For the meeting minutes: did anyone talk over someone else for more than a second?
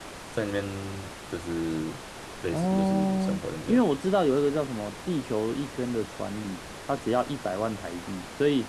Yes, from 2.5 s

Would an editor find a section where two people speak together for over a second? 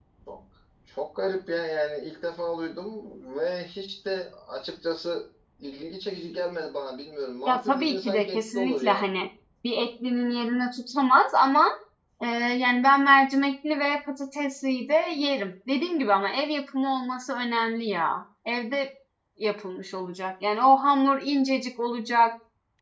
Yes, from 7.5 s

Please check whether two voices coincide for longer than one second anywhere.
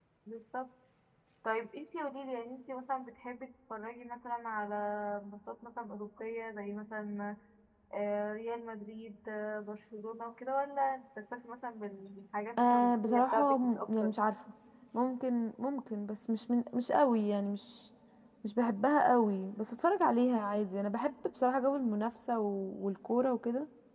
Yes, from 12.6 s

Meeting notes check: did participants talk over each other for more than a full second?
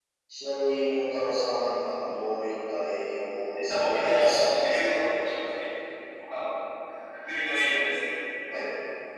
Yes, from 3.5 s

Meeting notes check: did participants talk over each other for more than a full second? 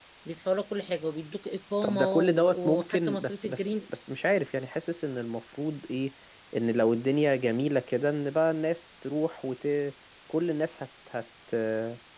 Yes, from 1.8 s

